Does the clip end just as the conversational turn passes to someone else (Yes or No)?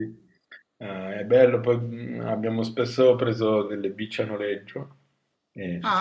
Yes